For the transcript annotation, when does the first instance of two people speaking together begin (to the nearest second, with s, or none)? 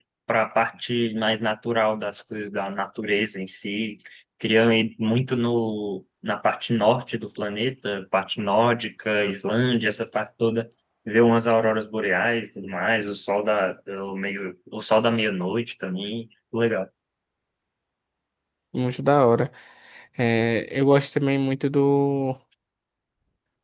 none